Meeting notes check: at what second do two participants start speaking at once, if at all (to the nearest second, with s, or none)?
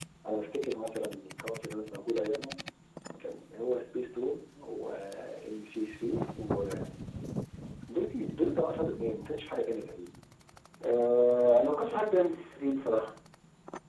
none